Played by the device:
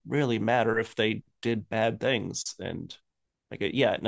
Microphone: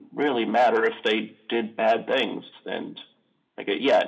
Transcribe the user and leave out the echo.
none

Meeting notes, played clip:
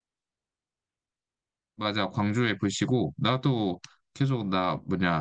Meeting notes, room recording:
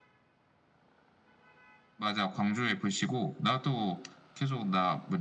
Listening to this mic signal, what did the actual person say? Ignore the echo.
none

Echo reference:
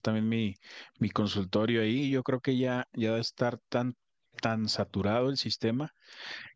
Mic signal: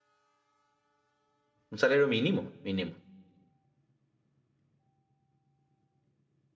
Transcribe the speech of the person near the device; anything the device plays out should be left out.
un salario mínimo, mínimo.

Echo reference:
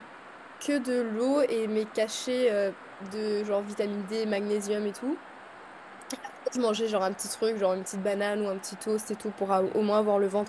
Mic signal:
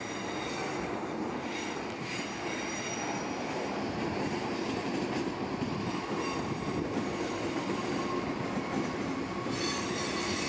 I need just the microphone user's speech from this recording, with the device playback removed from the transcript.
none

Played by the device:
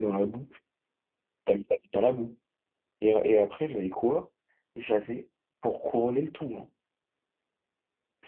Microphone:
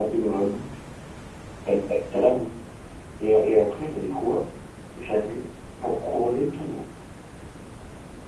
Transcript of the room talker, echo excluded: none

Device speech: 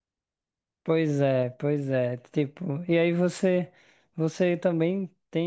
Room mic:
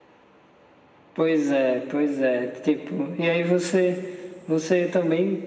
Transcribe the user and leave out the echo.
none

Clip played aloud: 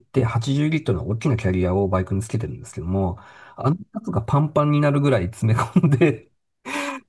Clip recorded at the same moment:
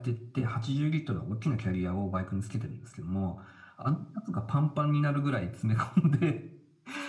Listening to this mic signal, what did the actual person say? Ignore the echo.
none

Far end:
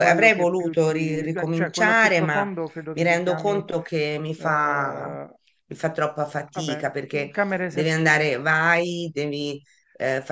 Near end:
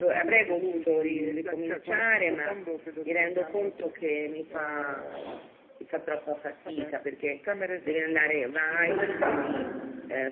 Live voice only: interessante.

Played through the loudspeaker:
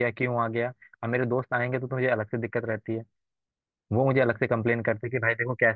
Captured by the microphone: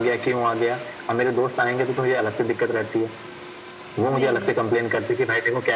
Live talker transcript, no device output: नहीं नहीं

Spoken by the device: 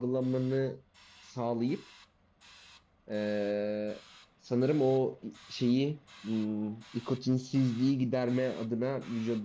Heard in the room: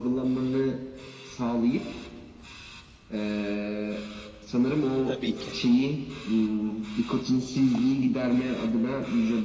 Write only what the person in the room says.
Tabii ki.

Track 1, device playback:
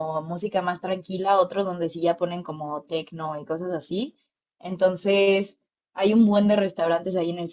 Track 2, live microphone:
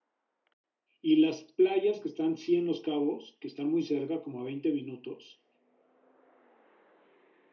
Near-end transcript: Y las playas que están, sí, en Los Cabos, que están muy cerca, como a 20 minutos,

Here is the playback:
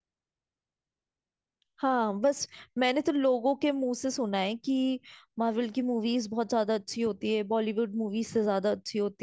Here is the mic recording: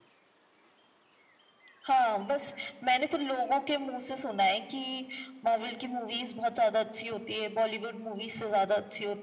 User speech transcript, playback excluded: none

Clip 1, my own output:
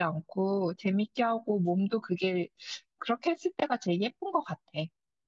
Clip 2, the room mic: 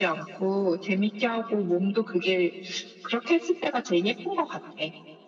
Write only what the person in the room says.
none

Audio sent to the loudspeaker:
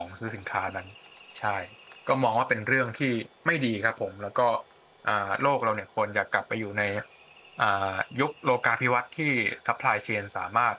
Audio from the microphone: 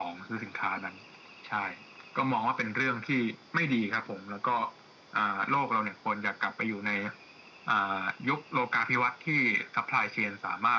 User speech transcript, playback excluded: none

